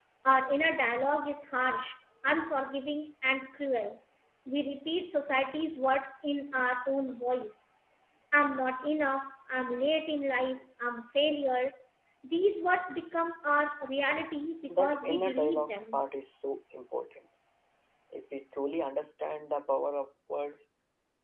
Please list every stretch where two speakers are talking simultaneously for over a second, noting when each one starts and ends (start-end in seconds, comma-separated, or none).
14.7-16.0